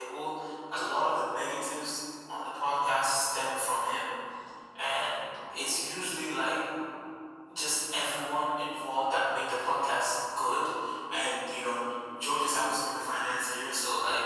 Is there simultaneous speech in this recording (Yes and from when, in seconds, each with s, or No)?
No